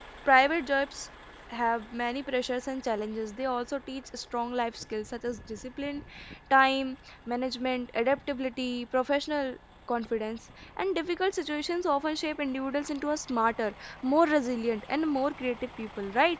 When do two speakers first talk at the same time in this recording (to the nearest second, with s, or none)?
none